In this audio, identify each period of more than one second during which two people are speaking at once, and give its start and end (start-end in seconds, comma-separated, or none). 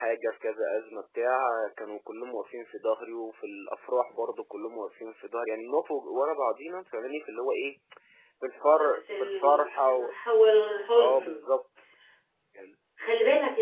8.8-10.1